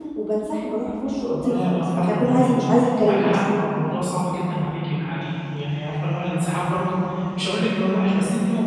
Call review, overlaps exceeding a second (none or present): present